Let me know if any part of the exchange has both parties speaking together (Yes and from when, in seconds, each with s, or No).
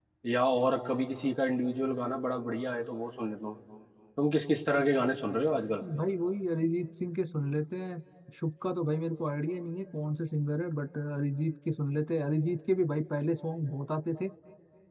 No